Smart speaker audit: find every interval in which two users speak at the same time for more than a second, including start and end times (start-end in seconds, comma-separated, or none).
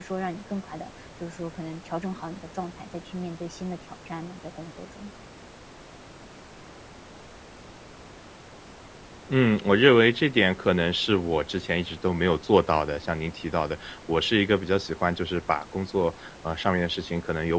none